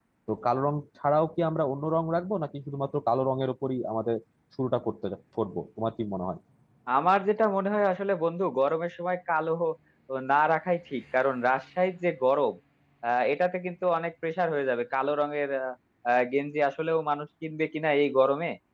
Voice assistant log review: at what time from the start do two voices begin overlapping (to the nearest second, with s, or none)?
none